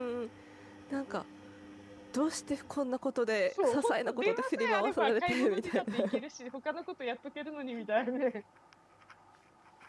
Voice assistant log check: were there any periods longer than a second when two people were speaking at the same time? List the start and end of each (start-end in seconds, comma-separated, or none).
3.5-6.0